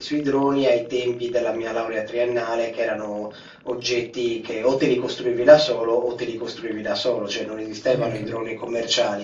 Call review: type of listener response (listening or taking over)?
listening